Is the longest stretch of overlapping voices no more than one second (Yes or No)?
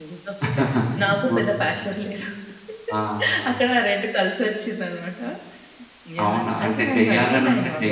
No